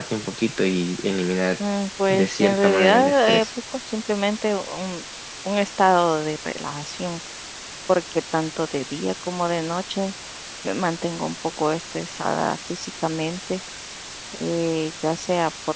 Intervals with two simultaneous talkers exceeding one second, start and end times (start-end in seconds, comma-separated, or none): 2.1-3.5